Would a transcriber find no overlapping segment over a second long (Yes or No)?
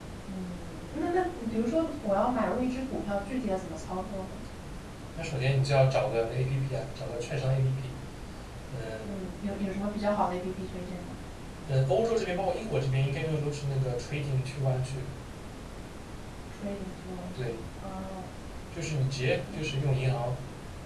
Yes